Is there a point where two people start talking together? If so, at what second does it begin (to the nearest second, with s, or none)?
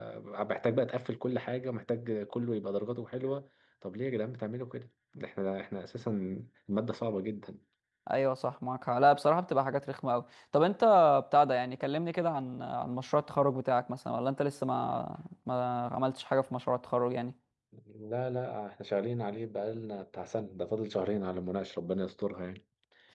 none